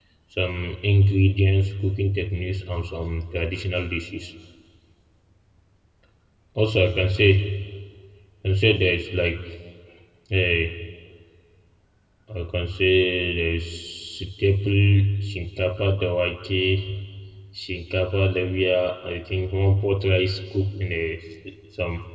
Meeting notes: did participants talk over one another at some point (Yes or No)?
No